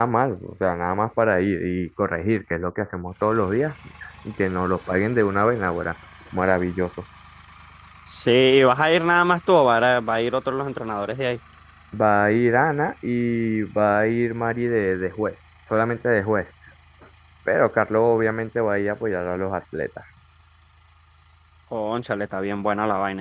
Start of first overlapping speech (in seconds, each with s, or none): none